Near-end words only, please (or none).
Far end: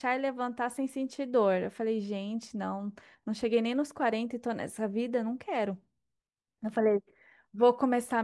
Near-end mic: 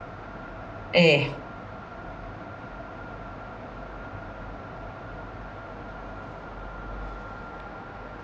É,